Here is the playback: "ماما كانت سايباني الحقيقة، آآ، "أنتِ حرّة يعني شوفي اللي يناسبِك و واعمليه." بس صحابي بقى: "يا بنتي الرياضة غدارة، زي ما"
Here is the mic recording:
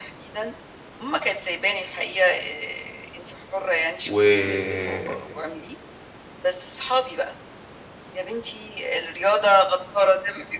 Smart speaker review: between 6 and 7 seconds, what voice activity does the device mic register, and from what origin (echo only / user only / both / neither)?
echo only